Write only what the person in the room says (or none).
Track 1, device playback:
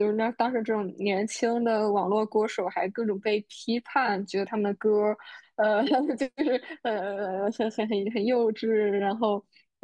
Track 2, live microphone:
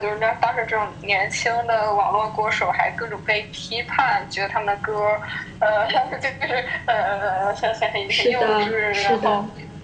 是的，是的，